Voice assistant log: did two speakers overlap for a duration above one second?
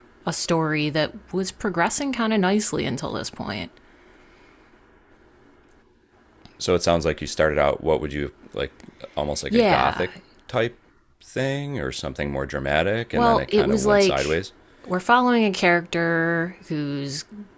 Yes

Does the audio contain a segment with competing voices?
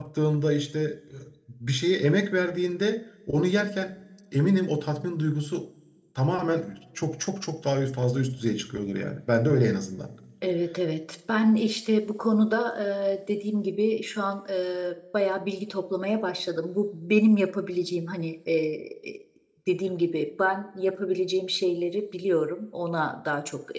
No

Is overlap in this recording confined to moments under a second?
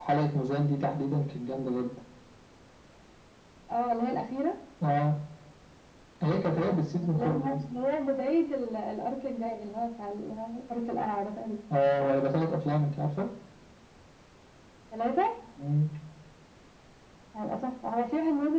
No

